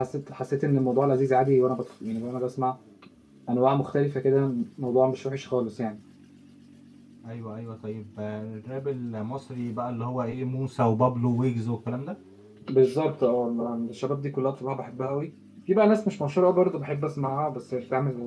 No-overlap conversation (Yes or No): Yes